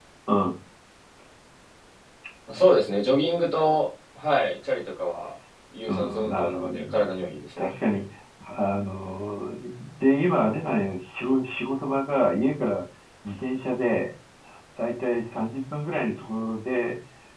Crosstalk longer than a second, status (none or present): present